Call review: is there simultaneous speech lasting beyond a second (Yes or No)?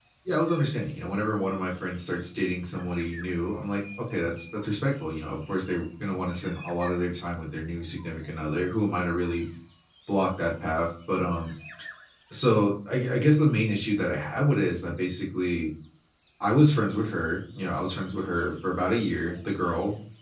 No